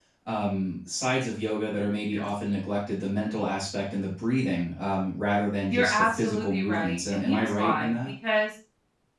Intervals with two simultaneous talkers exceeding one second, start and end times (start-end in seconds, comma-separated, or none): 5.7-7.9